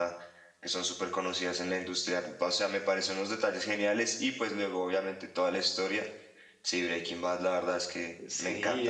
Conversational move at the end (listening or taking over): taking over